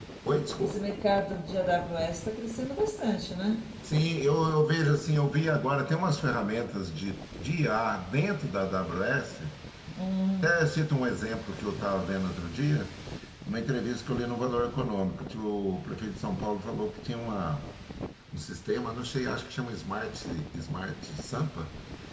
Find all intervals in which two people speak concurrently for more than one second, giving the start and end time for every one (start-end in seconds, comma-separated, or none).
none